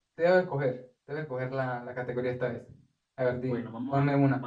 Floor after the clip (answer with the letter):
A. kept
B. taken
B